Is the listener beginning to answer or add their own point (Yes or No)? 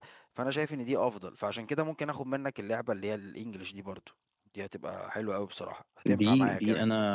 Yes